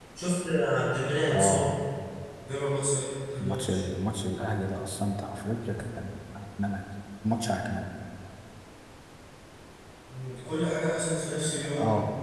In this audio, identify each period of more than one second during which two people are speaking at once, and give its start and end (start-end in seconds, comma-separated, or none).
none